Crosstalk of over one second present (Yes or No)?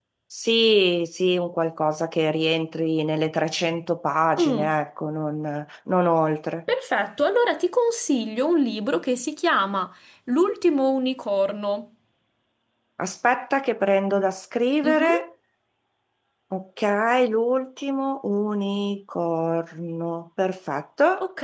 No